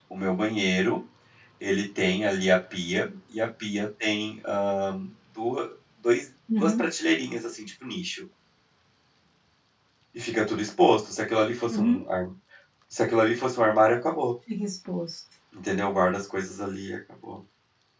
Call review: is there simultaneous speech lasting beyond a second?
No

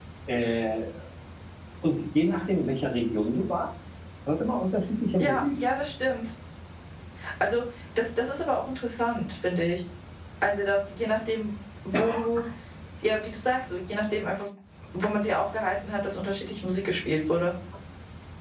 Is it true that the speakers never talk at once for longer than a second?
Yes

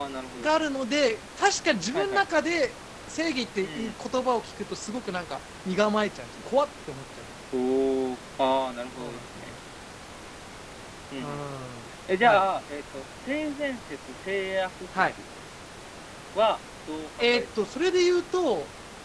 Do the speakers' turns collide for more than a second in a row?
No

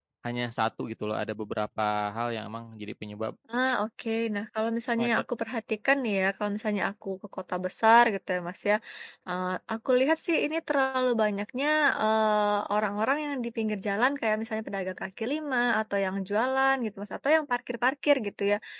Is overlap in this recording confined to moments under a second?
Yes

